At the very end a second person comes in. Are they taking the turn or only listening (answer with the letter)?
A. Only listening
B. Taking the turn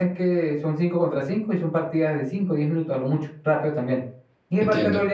A